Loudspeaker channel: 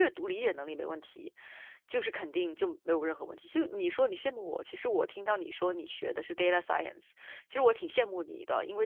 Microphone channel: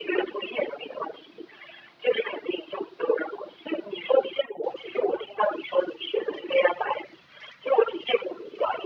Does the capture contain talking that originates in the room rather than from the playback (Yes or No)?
No